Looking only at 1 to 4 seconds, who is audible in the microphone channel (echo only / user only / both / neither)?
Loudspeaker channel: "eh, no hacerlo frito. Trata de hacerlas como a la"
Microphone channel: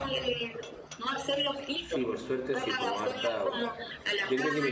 both